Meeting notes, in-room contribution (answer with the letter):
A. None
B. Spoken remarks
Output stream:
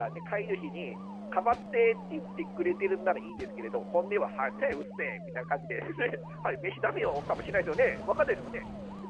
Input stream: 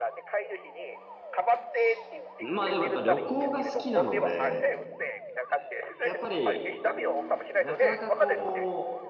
B